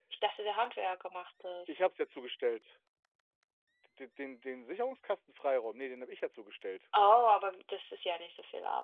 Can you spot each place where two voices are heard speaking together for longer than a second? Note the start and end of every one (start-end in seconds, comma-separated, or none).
none